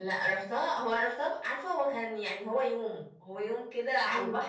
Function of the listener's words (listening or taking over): listening